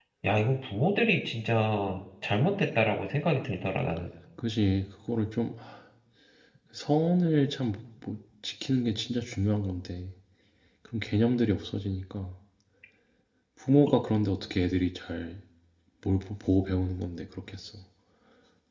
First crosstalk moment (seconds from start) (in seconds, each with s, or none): none